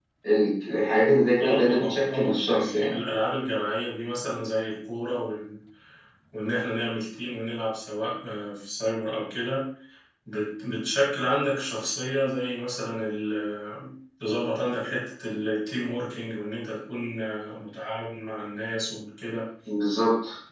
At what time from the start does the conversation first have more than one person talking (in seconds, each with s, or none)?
1.4 s